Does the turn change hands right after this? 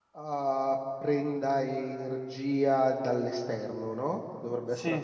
Yes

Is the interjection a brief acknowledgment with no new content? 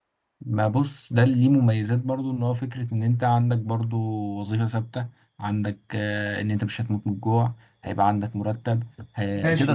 No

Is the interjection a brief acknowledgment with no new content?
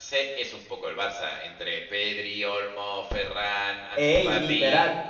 No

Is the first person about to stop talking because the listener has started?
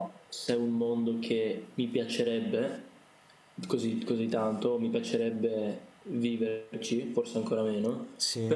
No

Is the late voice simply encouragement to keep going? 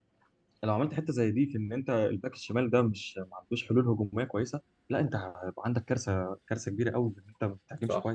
No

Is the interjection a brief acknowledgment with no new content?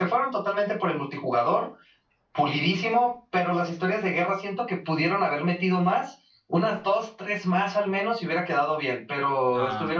No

